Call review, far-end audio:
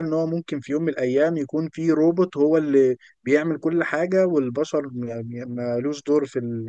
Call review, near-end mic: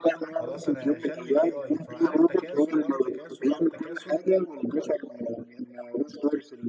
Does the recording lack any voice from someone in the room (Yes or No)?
No